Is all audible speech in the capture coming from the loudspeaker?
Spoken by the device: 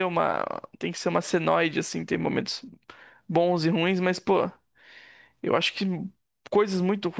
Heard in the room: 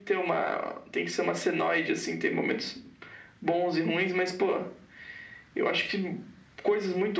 Yes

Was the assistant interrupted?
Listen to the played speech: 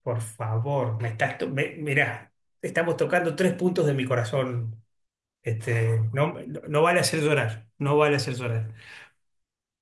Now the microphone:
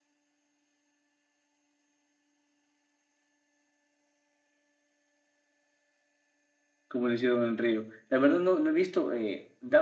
Yes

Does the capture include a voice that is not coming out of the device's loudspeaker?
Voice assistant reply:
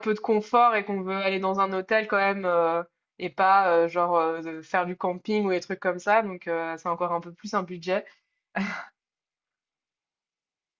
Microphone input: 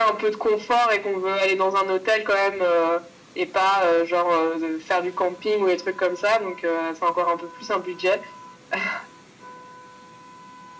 No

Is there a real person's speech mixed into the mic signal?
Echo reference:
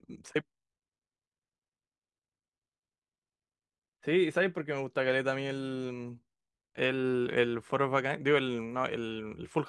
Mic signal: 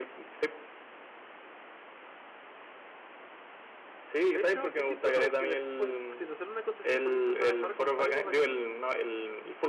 Yes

